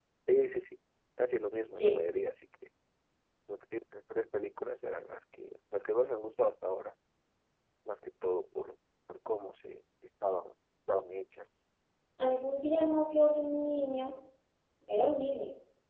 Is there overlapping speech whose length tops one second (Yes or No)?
No